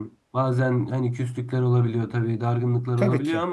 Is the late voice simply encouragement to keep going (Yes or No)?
Yes